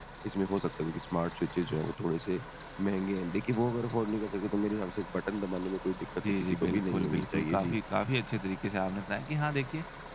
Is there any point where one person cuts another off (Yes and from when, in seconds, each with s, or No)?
Yes, from 6.2 s